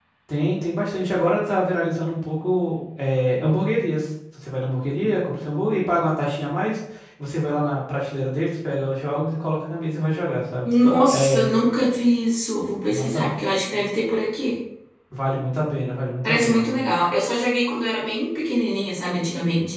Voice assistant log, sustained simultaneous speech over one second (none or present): none